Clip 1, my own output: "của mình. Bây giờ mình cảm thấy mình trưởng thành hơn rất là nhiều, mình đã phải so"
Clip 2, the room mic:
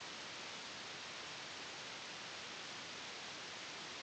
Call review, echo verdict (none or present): none